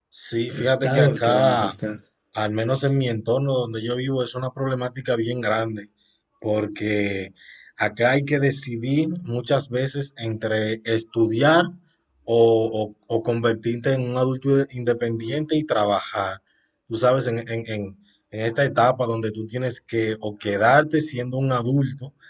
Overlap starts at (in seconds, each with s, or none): 0.5 s